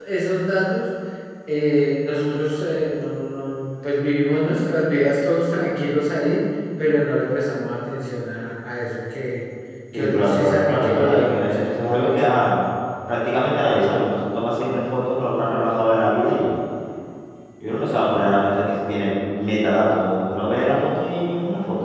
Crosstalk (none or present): present